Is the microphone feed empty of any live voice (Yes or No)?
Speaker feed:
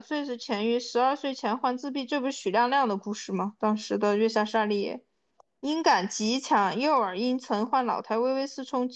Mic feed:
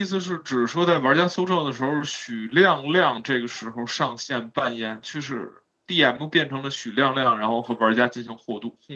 No